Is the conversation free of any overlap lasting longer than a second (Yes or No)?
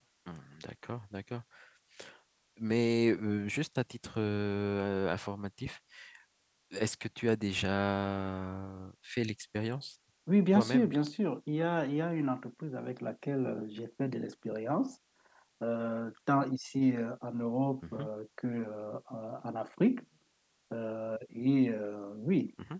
Yes